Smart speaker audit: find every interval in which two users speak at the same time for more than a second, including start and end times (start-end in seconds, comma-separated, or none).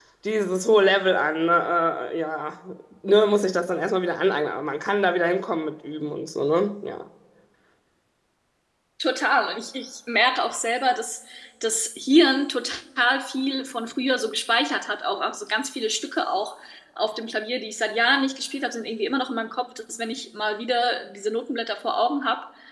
none